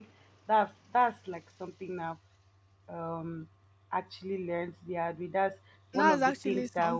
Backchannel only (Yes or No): No